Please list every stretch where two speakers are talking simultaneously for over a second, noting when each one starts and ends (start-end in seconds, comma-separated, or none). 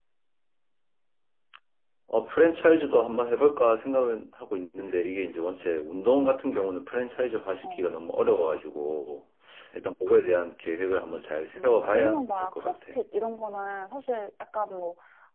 11.5-12.8